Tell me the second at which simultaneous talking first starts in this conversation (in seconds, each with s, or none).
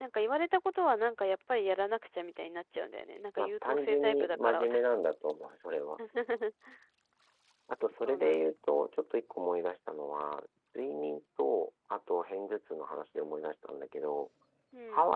3.4 s